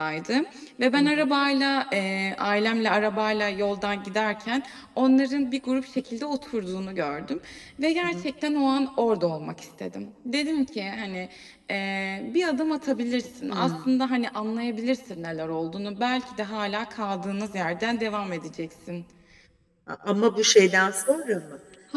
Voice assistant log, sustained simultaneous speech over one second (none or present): none